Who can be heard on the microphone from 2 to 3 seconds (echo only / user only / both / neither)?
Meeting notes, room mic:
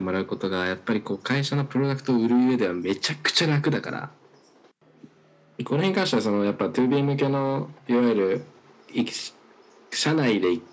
echo only